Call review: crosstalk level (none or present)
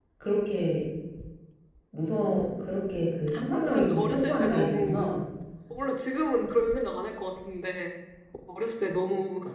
present